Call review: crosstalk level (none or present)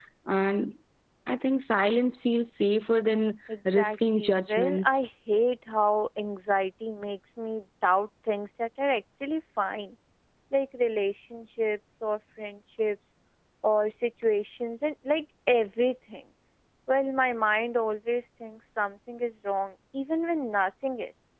present